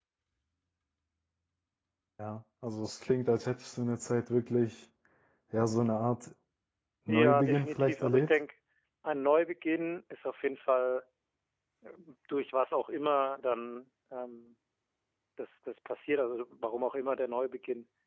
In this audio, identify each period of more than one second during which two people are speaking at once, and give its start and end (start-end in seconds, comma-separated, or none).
7.1-8.3